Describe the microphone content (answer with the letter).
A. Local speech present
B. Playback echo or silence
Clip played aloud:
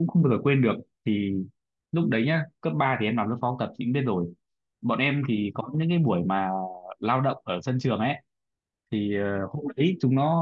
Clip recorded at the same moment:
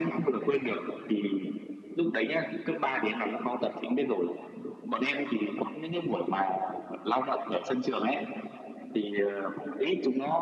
B